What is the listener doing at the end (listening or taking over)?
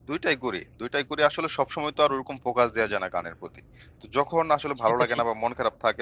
listening